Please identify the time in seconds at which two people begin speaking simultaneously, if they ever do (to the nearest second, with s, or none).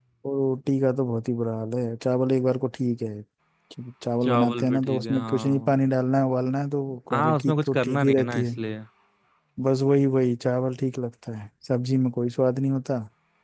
4 s